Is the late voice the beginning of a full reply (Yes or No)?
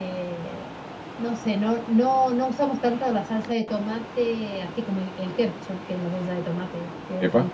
No